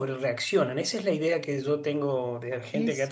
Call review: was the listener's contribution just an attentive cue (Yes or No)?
Yes